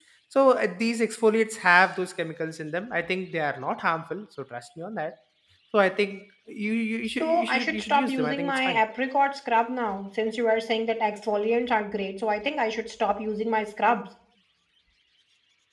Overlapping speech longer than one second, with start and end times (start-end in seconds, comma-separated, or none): 7.2-8.8